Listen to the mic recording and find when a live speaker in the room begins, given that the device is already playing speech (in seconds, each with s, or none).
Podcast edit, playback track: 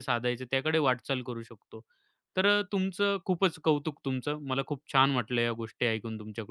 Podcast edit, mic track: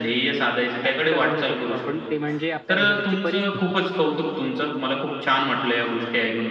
0.8 s